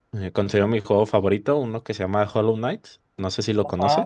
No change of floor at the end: No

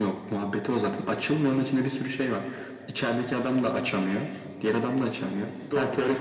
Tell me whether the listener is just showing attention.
Yes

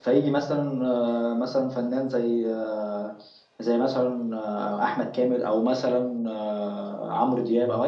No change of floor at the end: Yes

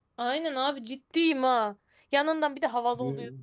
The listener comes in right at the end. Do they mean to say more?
No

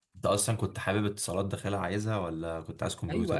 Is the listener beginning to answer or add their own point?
Yes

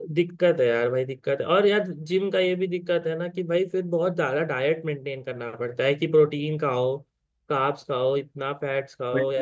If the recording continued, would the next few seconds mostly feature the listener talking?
Yes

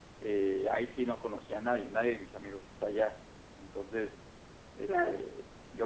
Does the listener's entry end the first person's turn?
No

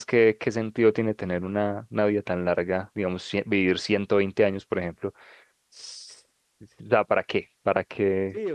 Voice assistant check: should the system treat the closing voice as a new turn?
Yes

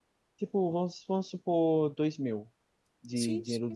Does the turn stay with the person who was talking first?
No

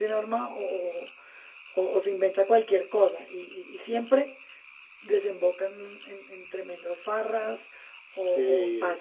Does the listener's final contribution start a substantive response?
No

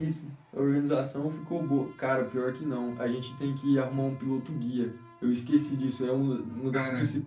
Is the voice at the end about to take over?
No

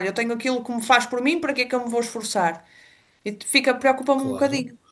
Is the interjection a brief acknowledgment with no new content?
No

